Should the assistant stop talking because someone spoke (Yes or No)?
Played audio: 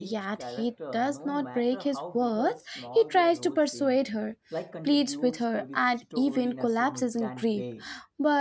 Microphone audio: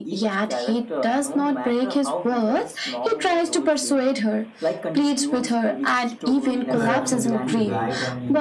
Yes